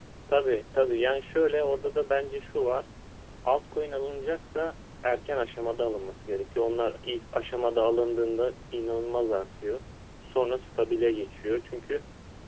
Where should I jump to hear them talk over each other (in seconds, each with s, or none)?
none